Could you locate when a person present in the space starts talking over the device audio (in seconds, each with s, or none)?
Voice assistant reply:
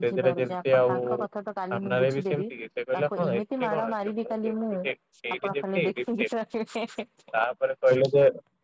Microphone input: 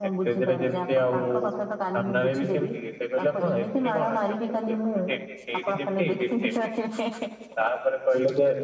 none